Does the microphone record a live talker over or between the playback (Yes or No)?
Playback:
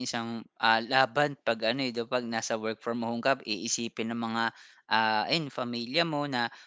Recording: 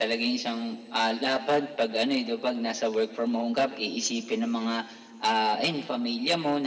No